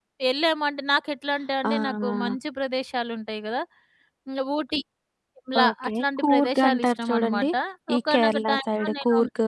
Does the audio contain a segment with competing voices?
Yes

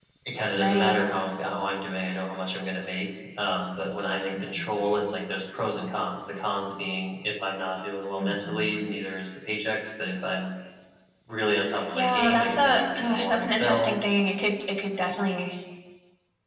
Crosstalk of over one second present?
Yes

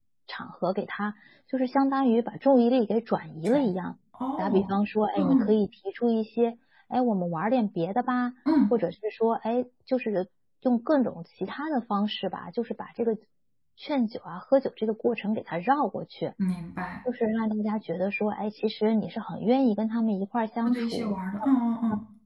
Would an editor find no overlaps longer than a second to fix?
Yes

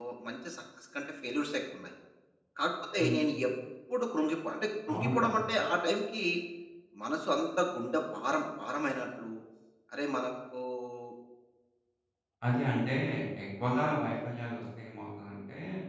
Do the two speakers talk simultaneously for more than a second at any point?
No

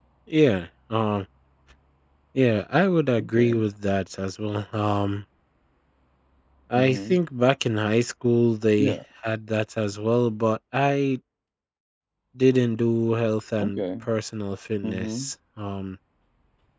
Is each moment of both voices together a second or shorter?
Yes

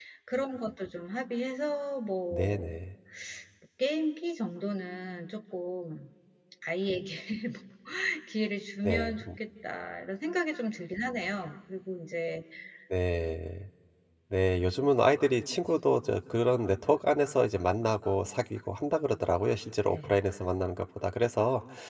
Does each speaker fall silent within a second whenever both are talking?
Yes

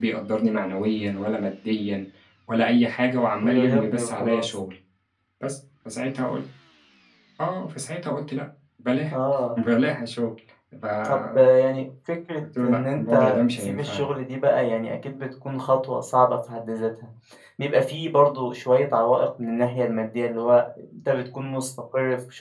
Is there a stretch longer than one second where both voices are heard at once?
Yes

